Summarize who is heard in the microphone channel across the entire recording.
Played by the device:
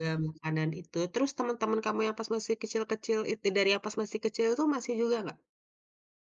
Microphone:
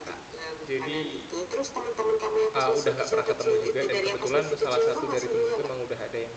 both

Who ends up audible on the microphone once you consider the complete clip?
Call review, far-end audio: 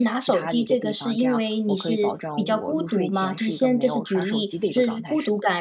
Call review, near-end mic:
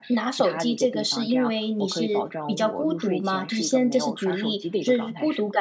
echo only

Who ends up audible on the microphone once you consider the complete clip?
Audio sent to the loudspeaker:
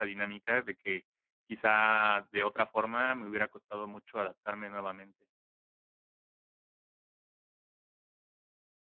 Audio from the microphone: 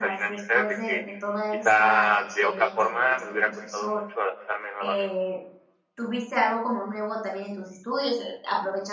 both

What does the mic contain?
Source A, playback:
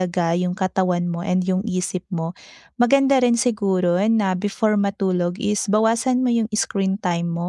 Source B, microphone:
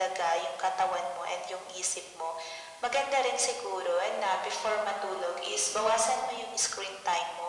echo only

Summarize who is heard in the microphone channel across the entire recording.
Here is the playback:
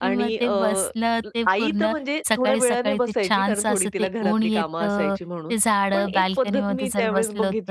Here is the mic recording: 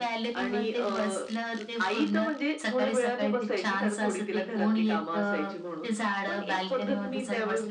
echo only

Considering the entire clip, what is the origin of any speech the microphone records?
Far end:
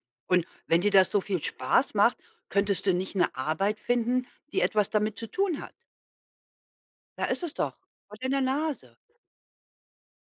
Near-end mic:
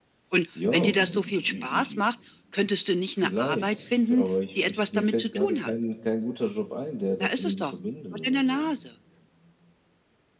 both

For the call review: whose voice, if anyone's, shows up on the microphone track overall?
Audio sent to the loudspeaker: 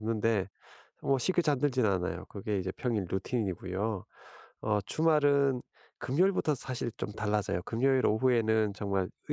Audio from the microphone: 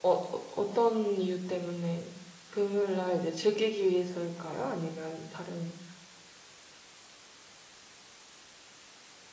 user only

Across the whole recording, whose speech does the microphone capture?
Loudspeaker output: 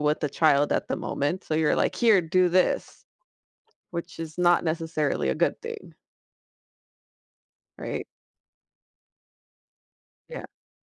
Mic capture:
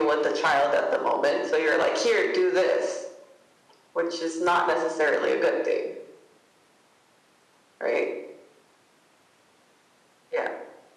echo only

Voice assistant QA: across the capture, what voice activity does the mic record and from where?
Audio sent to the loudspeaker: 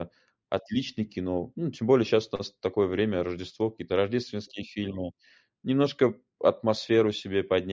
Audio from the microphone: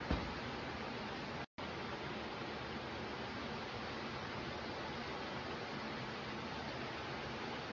neither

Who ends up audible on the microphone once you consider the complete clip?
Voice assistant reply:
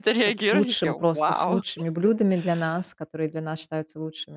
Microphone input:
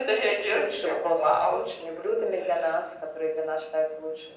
echo only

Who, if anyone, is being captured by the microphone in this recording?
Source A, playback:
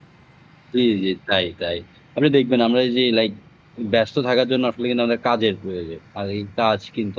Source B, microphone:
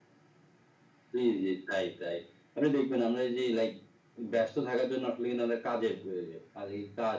echo only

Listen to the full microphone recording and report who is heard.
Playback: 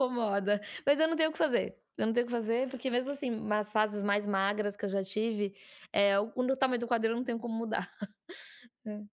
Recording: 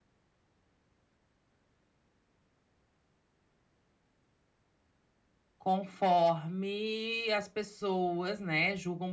user only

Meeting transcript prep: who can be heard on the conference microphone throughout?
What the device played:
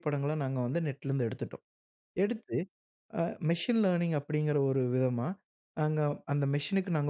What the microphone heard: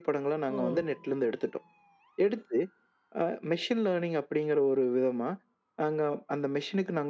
both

